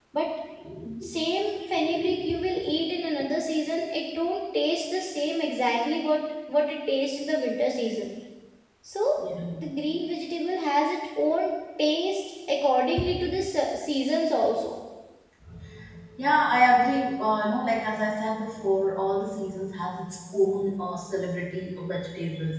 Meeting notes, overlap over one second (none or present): none